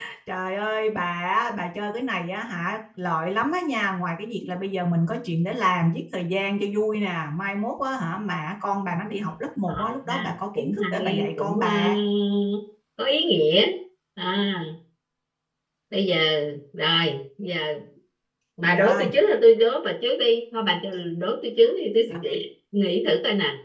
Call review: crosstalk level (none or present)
present